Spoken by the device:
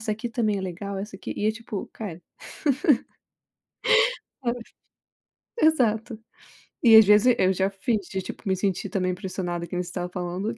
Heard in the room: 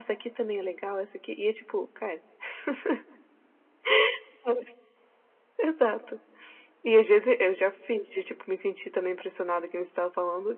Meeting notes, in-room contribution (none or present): none